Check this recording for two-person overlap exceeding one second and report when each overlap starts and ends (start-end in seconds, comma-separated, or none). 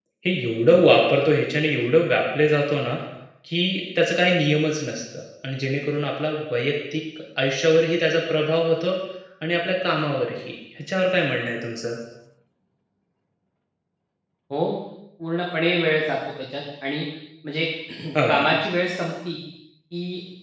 none